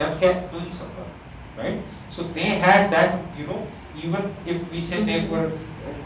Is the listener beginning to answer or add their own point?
No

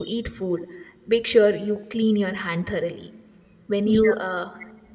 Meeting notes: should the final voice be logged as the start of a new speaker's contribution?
No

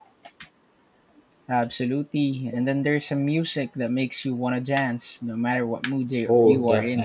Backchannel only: No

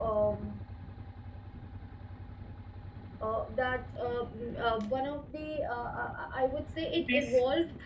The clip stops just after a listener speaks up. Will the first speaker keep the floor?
Yes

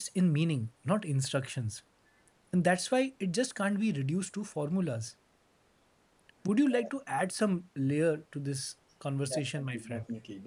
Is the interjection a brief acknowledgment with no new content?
No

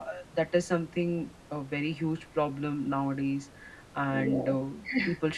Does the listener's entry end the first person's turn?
No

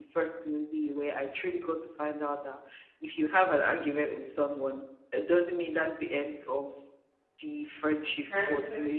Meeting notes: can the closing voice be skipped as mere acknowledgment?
Yes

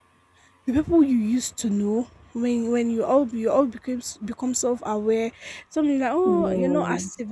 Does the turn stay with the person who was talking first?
Yes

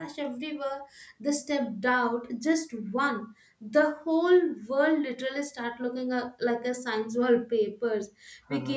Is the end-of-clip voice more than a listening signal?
No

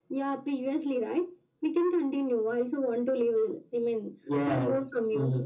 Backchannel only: No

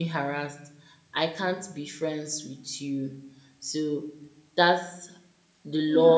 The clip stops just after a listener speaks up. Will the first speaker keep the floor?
No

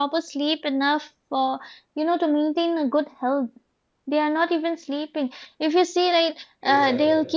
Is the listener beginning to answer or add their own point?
No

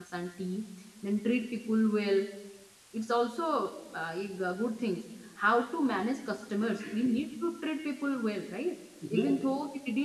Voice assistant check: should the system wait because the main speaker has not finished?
Yes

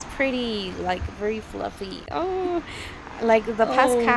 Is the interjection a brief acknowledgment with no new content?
Yes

